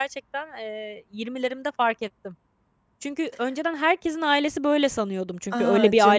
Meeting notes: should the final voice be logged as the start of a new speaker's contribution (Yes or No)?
Yes